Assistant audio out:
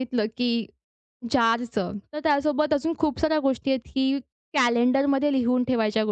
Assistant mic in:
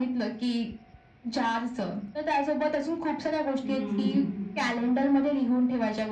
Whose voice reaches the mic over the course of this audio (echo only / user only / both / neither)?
both